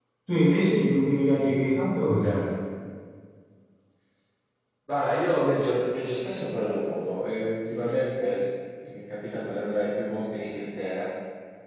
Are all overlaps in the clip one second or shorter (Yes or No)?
Yes